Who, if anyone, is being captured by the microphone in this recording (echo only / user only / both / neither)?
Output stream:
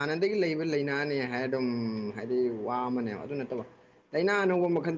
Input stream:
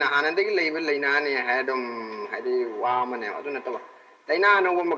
echo only